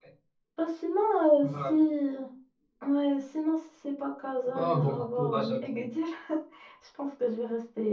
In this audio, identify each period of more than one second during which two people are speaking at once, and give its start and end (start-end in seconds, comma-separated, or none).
4.5-5.8